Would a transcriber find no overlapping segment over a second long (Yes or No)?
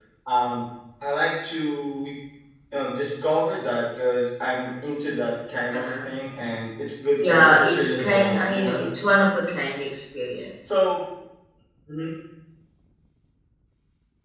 No